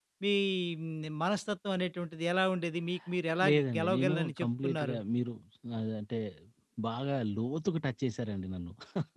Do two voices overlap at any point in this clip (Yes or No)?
Yes